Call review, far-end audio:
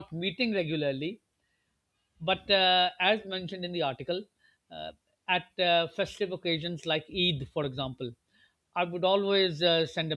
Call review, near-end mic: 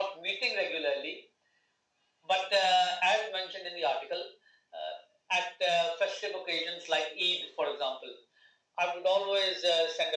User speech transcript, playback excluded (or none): none